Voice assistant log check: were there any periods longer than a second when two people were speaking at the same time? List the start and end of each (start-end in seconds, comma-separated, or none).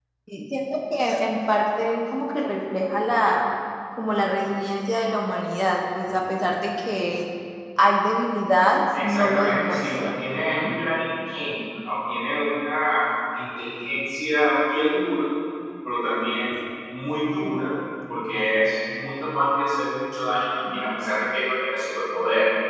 9.0-10.2